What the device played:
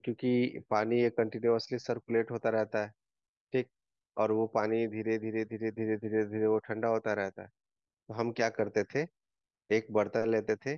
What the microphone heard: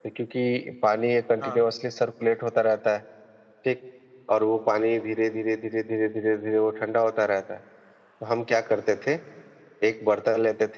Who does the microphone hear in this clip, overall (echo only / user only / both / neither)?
both